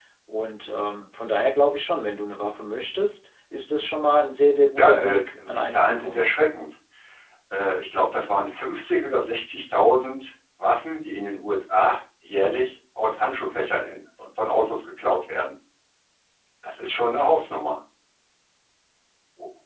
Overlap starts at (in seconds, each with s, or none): 4.8 s